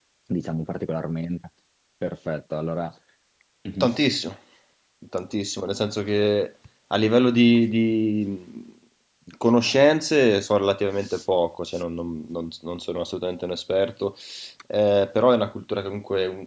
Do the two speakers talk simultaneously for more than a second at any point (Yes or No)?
No